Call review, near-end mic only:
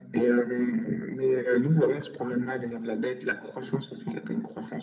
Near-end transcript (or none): none